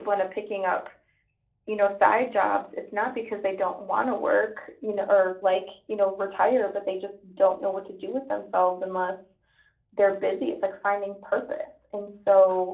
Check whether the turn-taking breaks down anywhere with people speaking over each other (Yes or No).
No